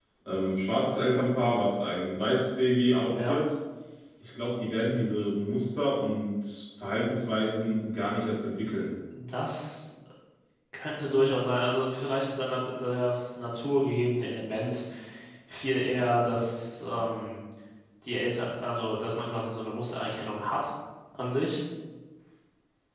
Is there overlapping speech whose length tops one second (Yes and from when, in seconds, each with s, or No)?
No